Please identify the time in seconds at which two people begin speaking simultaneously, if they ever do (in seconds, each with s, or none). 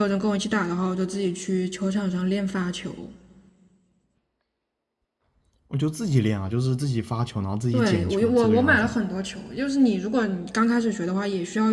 7.7 s